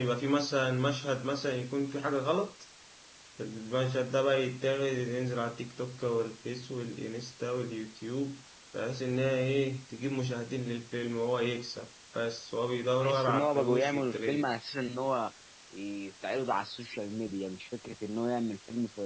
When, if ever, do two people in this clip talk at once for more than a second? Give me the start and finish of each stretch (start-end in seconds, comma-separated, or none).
13.0-14.4